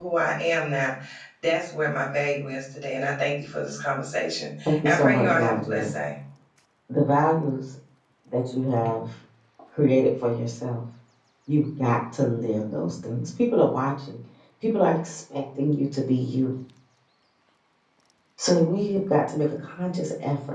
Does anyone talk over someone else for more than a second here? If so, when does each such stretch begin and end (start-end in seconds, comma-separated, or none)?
4.7-5.9